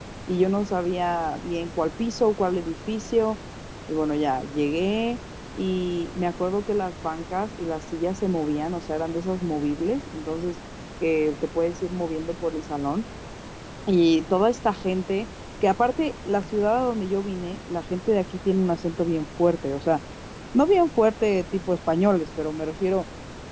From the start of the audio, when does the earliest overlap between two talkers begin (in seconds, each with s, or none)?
none